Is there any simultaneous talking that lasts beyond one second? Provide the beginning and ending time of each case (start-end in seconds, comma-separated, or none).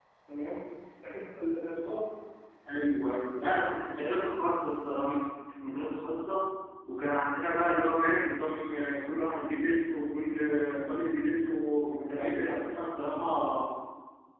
none